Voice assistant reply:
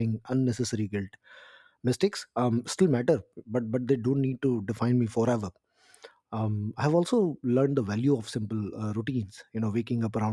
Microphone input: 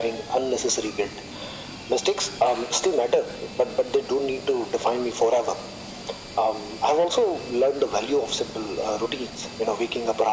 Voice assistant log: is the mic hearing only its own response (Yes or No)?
Yes